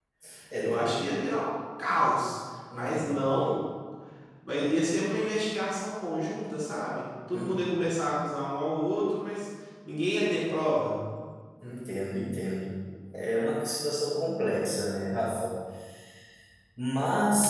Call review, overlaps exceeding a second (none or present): none